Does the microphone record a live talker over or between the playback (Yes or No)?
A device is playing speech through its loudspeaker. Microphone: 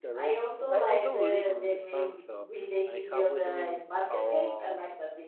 Yes